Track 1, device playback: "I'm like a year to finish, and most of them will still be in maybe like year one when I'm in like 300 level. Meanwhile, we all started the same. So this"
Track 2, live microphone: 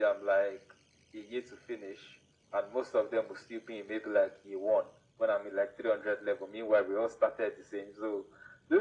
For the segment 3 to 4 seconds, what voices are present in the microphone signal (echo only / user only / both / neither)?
echo only